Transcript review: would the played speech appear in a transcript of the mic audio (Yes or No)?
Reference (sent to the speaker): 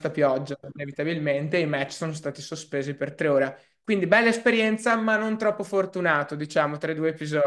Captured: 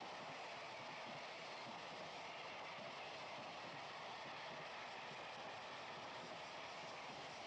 No